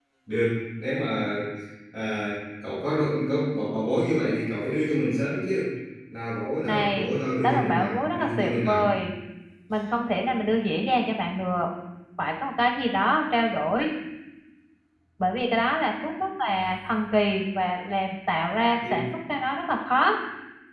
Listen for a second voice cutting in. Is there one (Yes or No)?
Yes